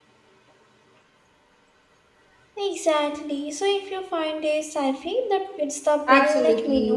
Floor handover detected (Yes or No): Yes